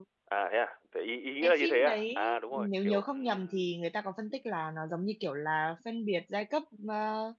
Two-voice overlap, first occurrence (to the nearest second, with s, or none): 1 s